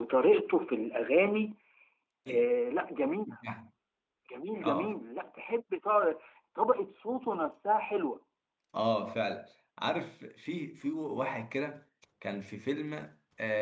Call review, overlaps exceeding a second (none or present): none